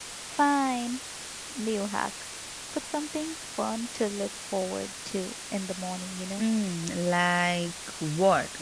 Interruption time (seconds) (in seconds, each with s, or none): none